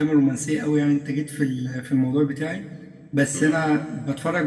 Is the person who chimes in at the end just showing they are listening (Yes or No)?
Yes